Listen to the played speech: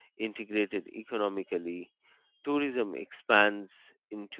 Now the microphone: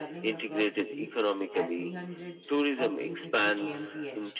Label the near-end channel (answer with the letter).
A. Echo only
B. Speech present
B